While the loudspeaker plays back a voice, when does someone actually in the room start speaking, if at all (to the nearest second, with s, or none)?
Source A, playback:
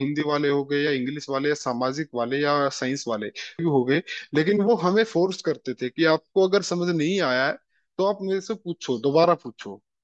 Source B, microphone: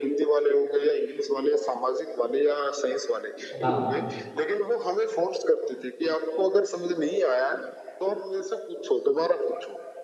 4 s